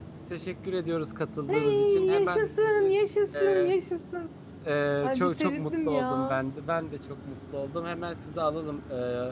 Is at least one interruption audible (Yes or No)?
Yes